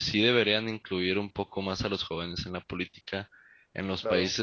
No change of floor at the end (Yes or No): Yes